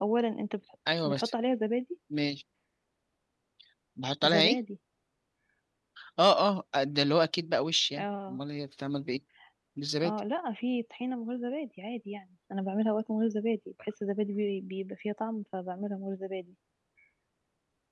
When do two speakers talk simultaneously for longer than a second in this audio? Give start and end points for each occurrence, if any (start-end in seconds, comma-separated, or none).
none